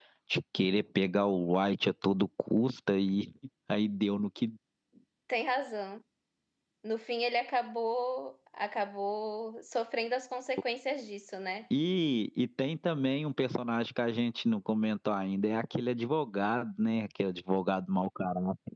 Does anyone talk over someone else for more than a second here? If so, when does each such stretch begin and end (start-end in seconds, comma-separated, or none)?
none